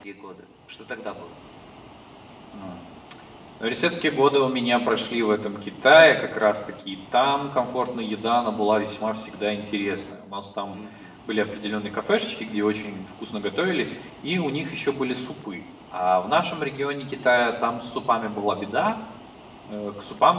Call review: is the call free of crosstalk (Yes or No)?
Yes